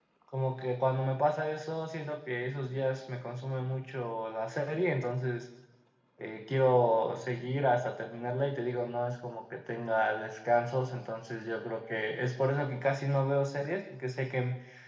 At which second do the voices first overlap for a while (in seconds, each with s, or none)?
none